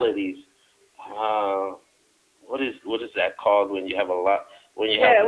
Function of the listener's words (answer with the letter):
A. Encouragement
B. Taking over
B